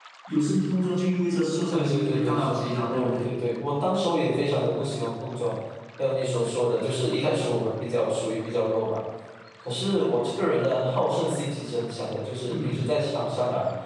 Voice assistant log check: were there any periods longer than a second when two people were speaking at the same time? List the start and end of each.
1.7-3.3

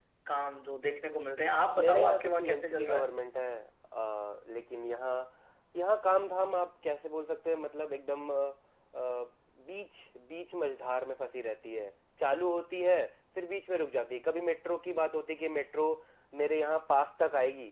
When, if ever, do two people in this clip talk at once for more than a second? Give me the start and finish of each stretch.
1.8-3.1

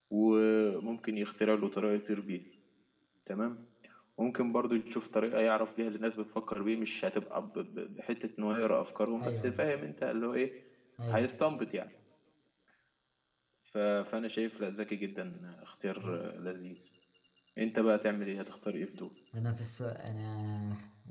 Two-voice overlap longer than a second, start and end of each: none

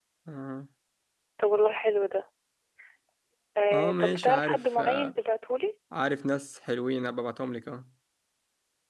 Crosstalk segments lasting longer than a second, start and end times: 3.7-5.1

